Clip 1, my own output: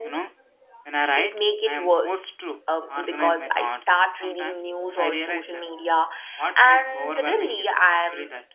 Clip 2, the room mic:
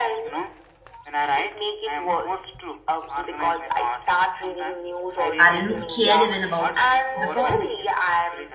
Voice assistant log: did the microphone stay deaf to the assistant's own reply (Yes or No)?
No